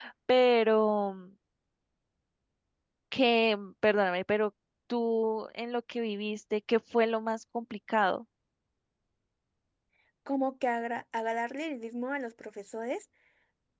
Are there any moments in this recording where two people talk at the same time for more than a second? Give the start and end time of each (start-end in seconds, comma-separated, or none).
none